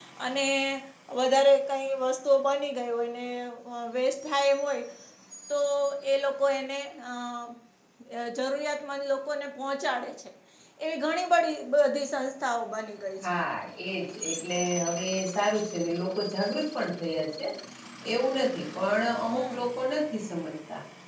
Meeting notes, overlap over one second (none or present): none